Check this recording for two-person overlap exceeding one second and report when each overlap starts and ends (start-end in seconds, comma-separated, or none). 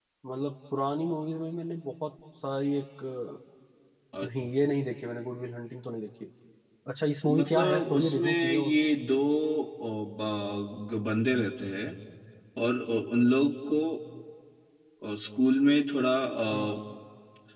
7.3-8.7